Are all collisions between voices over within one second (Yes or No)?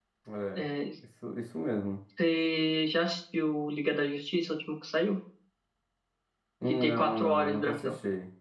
No